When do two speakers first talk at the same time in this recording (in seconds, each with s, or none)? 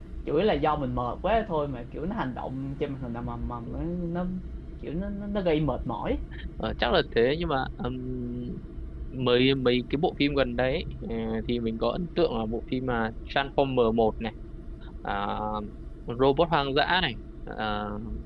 none